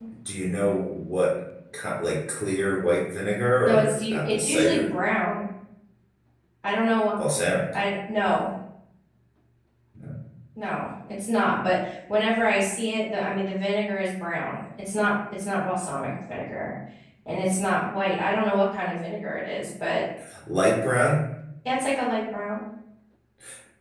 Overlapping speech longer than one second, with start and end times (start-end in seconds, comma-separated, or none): 3.6-4.9